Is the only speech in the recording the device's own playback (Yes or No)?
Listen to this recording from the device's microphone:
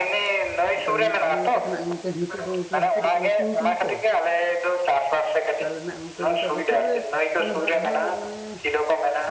No